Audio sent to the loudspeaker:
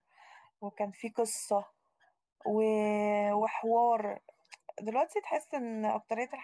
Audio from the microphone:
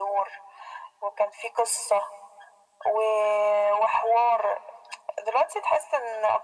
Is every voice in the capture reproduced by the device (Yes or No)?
Yes